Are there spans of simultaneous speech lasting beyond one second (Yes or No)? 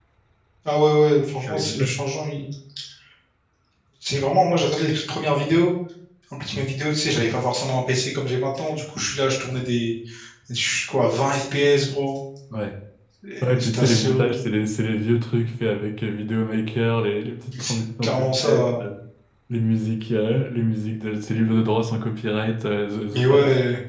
Yes